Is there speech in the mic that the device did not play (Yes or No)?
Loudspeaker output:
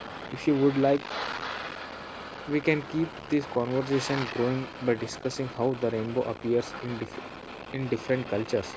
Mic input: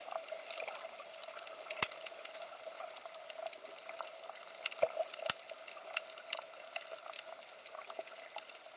No